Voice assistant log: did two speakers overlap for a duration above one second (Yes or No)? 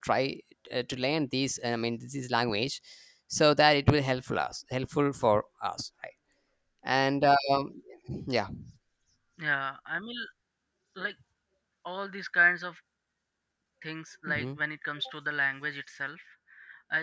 No